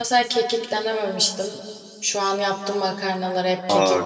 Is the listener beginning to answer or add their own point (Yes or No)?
Yes